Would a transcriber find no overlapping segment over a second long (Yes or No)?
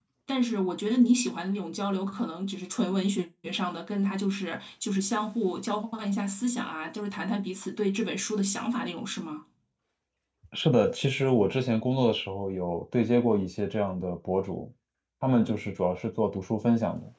Yes